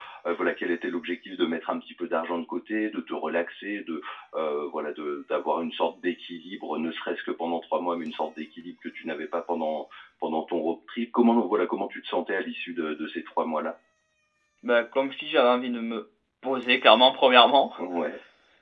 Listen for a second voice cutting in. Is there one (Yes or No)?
No